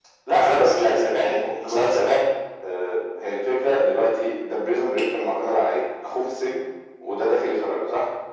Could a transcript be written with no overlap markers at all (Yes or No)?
No